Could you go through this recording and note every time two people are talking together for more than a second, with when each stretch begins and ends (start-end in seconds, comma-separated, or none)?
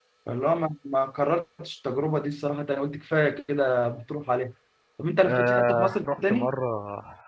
5.2-6.5